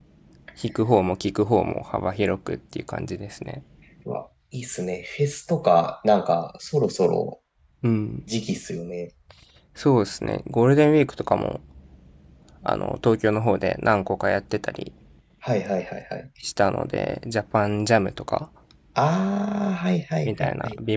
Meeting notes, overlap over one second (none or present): none